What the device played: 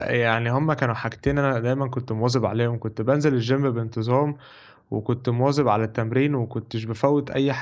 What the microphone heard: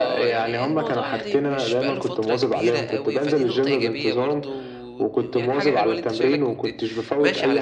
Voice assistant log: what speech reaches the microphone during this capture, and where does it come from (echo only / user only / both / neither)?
both